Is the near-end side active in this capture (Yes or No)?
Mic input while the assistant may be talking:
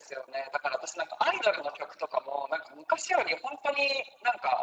No